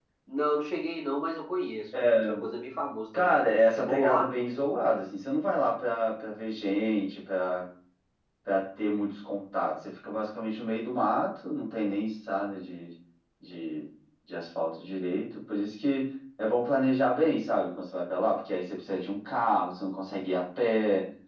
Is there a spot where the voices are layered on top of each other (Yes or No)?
Yes